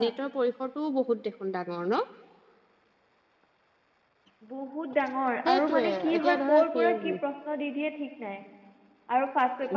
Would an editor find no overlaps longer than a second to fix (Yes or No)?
No